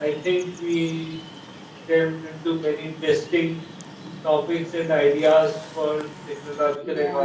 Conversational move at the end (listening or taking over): listening